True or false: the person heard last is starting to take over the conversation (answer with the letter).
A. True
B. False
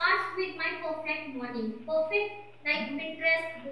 B